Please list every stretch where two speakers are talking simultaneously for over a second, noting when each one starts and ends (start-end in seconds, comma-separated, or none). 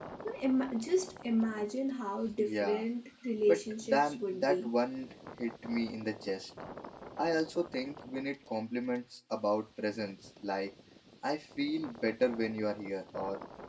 3.5-4.7